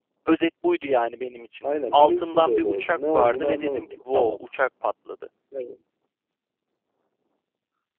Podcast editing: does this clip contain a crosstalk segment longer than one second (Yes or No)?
Yes